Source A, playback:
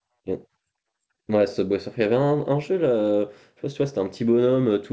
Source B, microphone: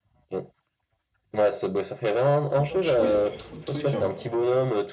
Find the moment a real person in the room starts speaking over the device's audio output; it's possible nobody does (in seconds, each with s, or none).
2.5 s